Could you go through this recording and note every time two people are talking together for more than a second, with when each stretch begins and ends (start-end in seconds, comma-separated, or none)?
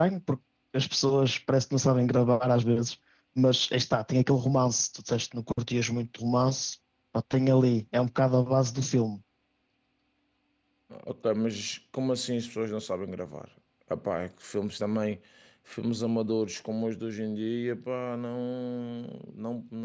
none